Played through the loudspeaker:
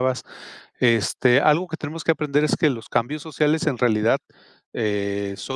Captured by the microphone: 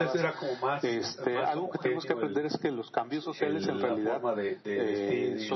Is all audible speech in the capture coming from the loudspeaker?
No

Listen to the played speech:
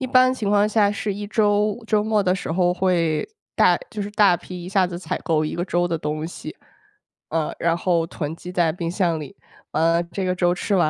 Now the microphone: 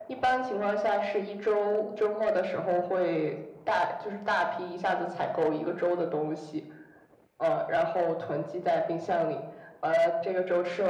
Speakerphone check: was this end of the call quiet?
Yes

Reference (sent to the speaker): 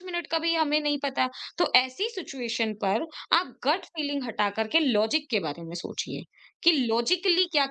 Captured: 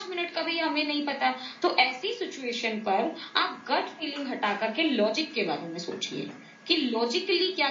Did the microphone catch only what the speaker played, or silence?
Yes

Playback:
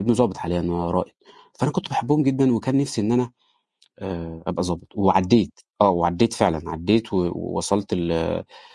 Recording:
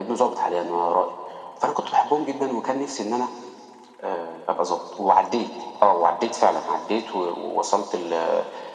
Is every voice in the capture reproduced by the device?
Yes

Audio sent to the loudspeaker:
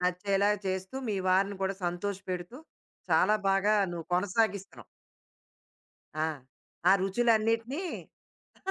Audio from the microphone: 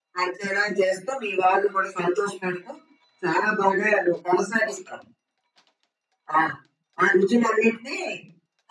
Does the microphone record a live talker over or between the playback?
No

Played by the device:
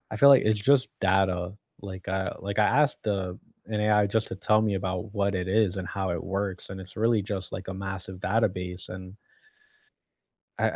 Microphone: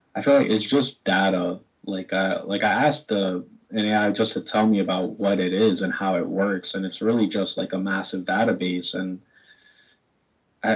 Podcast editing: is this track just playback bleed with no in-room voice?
Yes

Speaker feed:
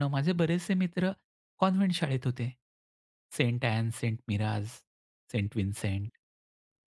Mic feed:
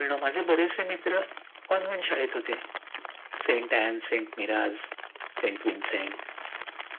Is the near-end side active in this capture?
No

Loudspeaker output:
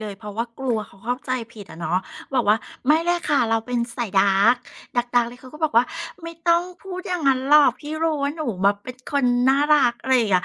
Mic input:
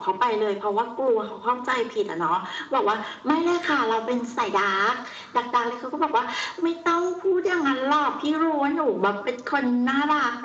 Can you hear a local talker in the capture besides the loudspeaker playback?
No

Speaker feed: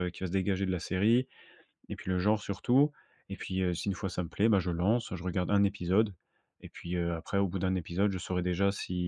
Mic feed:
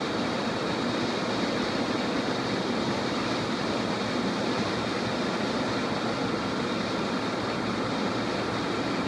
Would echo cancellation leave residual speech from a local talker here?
No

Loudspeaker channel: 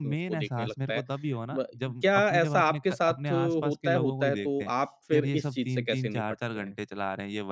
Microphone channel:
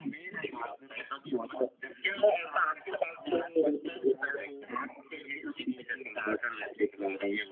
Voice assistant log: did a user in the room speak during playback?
No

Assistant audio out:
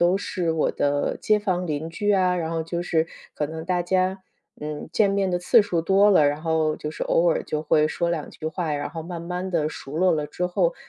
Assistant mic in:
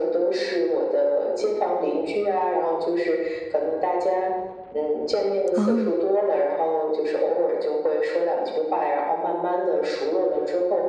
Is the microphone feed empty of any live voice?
No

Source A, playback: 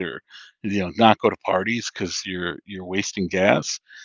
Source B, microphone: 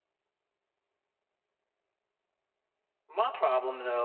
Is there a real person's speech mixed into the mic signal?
Yes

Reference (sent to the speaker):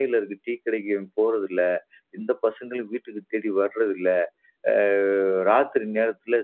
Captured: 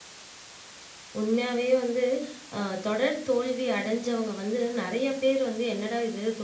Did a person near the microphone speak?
Yes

